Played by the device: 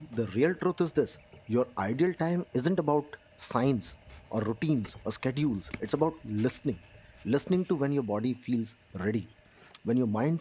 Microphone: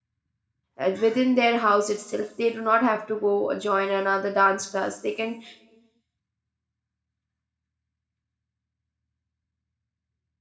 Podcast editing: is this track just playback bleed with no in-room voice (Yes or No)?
No